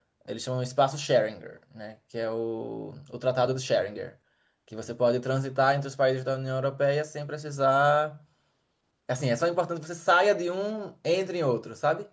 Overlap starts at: none

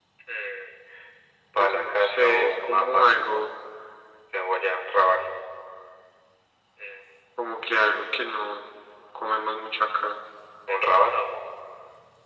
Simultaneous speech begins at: 1.6 s

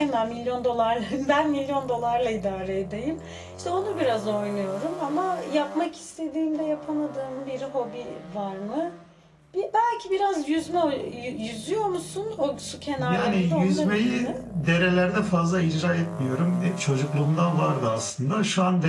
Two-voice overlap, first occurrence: 13.0 s

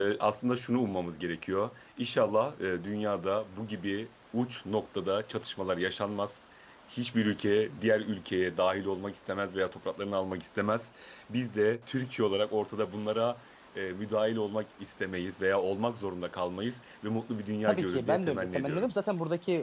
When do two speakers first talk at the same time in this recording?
17.7 s

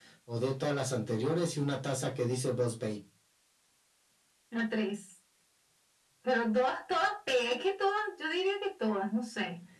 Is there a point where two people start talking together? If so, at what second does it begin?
none

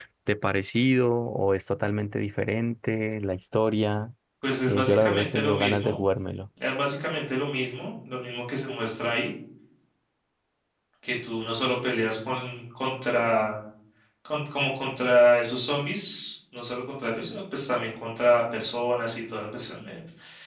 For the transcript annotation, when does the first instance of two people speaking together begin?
4.7 s

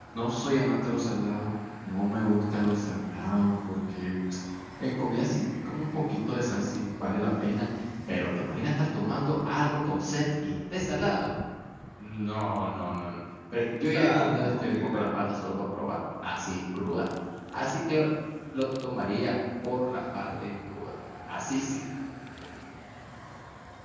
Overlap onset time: 13.6 s

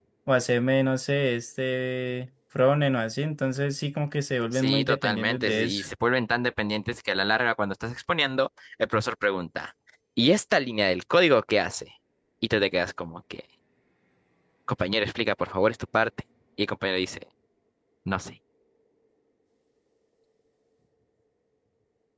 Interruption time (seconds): 4.5 s

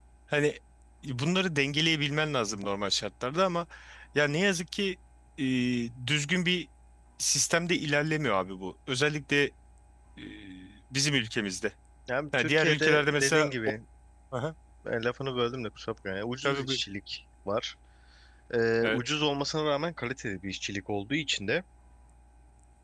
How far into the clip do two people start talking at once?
12.3 s

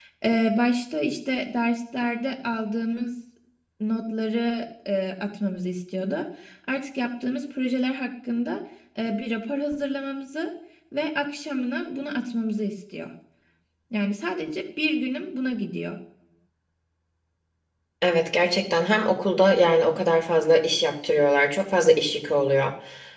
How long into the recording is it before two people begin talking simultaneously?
none

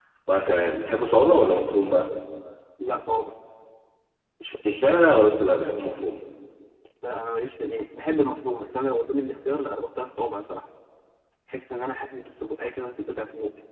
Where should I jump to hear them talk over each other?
none

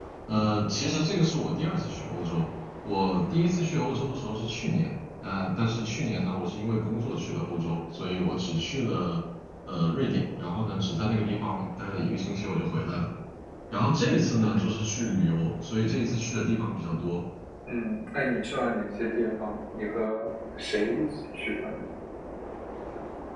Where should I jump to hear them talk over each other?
none

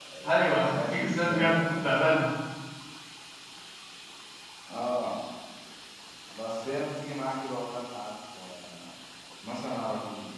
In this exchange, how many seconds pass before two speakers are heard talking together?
0.7 s

